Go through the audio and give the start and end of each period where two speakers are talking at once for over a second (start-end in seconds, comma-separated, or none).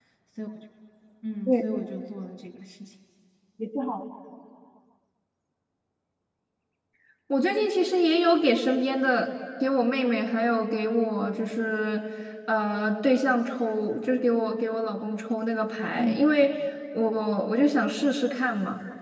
none